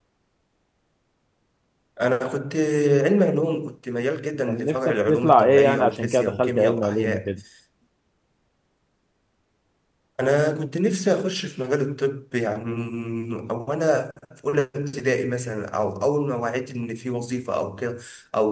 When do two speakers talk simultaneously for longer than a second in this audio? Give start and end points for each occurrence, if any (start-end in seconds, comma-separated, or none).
4.5-7.3